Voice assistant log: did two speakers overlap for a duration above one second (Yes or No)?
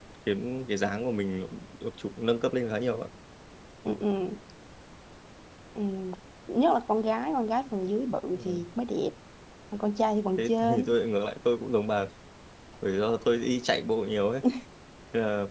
No